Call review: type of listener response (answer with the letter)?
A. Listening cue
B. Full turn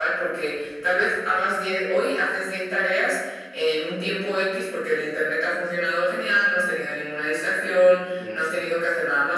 A